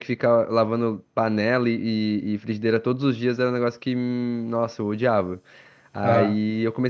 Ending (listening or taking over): listening